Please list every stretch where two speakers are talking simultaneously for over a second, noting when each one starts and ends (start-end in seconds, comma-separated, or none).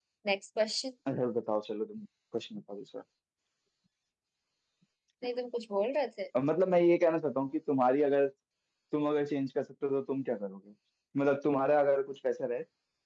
none